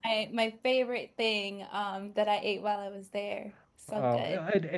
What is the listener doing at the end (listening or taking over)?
taking over